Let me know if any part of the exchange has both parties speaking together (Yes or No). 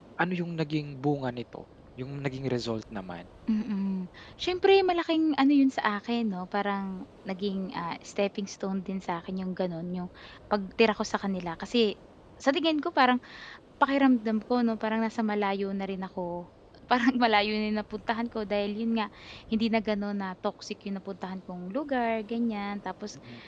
No